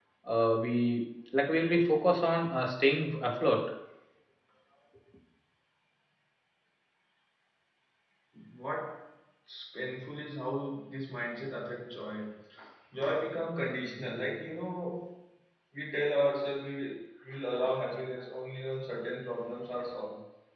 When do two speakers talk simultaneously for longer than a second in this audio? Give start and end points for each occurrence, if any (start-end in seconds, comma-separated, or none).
none